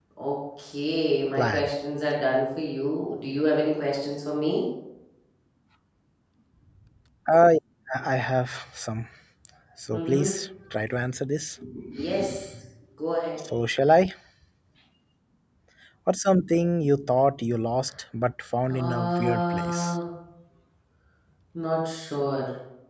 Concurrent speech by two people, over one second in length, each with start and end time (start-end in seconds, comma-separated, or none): 18.7-19.9